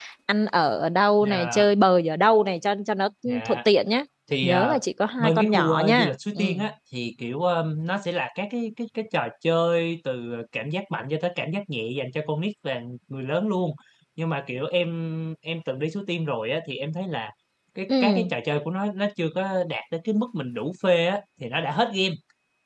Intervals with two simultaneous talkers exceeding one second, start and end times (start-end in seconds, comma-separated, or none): 5.2-6.4